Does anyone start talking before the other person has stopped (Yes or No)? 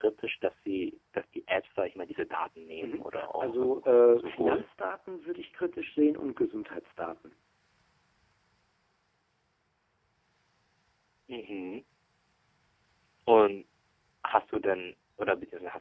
Yes